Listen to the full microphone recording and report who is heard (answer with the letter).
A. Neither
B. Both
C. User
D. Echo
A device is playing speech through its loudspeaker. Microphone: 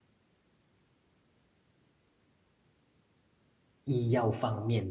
C